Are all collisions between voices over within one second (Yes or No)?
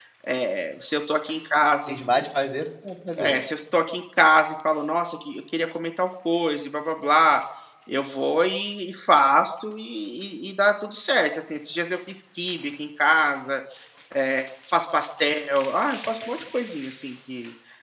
Yes